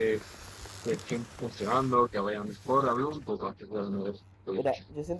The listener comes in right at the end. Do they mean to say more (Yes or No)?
Yes